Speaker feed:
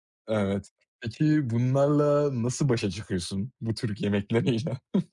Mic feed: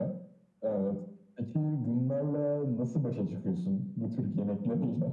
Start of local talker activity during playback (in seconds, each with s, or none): none